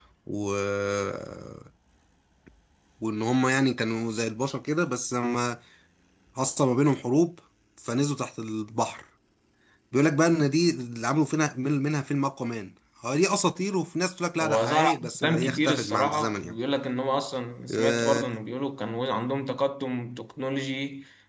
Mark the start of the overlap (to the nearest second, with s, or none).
14 s